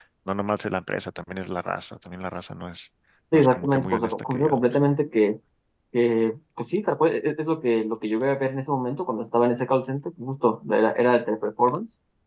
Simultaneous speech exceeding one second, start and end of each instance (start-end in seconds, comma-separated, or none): 3.3-4.6